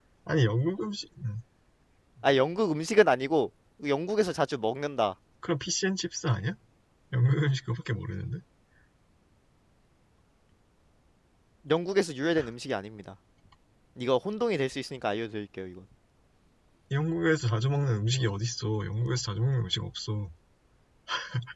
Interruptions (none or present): none